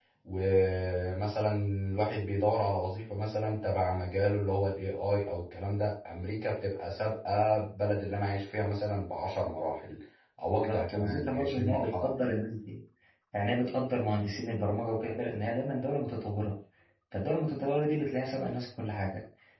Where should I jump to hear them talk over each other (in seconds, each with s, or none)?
10.5 s